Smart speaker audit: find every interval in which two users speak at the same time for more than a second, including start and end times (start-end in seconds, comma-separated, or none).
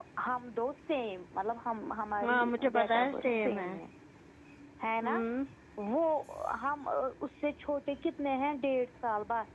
2.3-3.6